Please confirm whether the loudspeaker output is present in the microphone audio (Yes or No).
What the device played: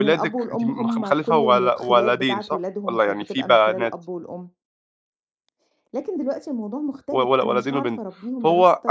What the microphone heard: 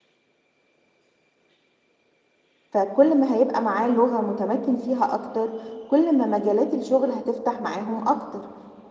No